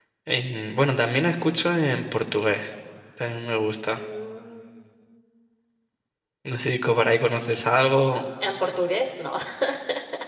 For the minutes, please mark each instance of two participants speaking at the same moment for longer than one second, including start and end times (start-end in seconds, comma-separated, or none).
none